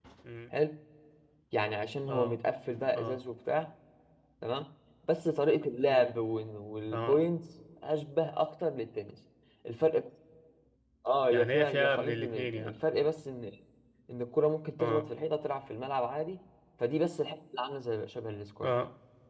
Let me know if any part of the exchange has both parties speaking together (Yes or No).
Yes